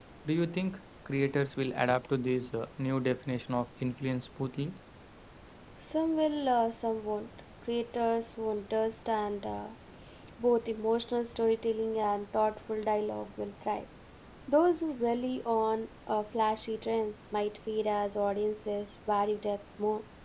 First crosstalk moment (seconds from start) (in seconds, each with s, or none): none